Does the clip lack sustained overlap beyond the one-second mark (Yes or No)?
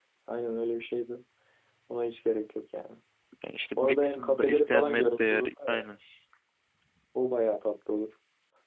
No